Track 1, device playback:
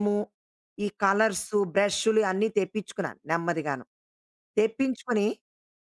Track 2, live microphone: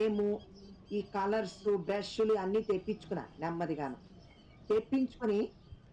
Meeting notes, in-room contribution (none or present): none